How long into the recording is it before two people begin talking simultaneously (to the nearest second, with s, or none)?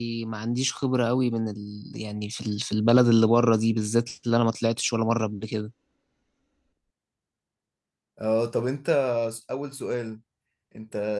none